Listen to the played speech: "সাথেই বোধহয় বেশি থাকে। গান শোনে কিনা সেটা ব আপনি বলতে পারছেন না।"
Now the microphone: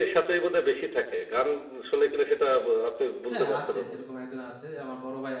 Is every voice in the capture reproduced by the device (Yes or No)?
No